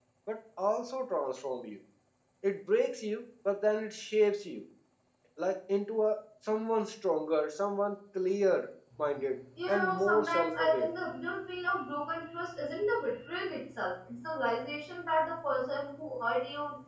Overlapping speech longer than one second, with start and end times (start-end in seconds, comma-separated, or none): 9.7-10.9